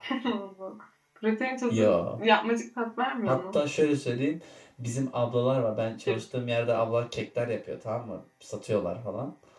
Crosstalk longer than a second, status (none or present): none